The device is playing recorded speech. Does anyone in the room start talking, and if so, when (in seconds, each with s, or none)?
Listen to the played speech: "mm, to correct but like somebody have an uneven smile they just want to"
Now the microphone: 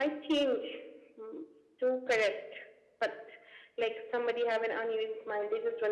none